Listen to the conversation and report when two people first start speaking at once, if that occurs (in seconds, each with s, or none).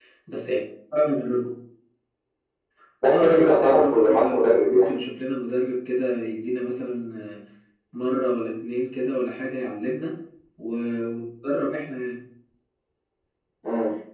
3.1 s